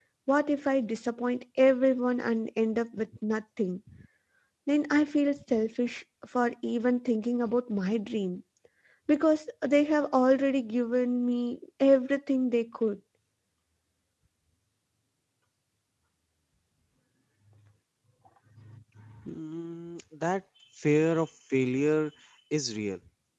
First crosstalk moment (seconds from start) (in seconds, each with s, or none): none